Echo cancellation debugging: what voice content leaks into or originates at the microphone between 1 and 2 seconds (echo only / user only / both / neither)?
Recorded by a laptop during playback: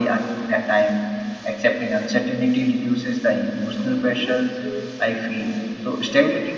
echo only